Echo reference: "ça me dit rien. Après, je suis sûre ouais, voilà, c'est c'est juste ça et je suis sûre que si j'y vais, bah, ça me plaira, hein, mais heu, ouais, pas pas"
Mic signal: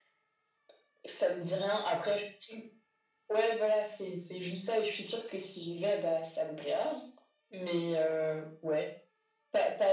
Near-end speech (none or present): none